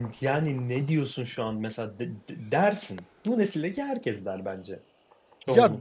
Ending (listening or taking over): taking over